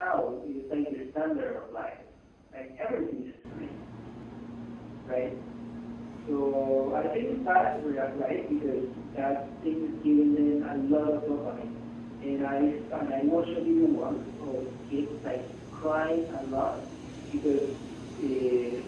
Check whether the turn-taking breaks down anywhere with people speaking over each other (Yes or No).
No